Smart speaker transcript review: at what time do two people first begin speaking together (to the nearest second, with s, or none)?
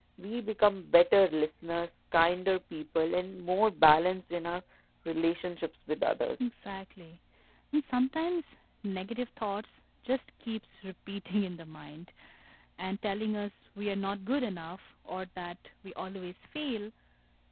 none